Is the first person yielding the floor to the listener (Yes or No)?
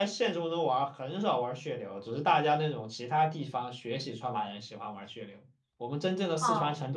No